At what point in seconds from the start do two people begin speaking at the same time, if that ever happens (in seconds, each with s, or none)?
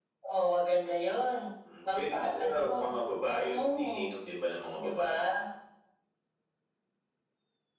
1.9 s